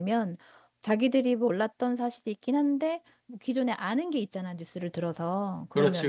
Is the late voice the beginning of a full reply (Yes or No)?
No